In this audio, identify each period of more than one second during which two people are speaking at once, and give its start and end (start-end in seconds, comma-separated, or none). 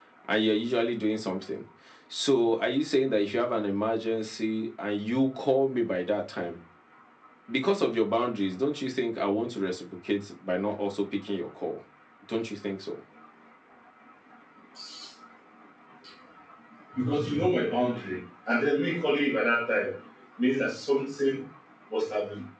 none